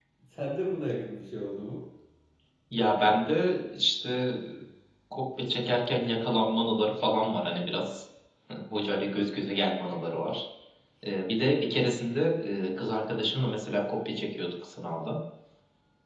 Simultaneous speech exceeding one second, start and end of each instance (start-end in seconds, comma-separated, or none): none